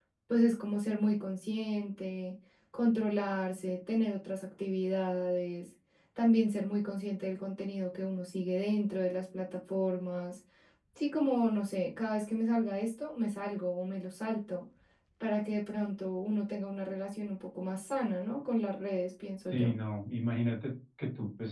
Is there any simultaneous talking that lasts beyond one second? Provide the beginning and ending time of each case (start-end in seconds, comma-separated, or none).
none